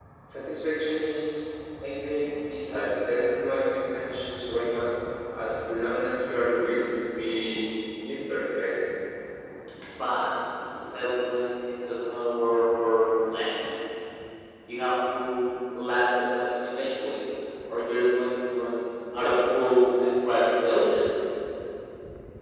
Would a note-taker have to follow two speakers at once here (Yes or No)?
No